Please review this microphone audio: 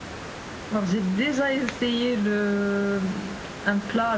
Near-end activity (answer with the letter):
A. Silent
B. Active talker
A